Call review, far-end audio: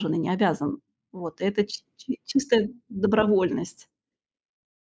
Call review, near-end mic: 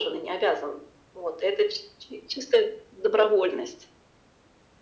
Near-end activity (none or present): none